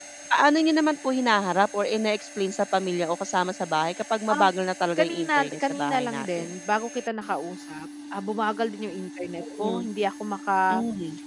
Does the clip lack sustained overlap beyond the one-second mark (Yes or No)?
No